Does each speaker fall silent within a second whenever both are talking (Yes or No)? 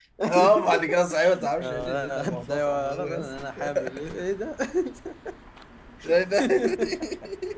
No